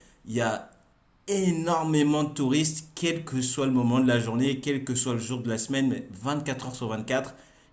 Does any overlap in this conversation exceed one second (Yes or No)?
No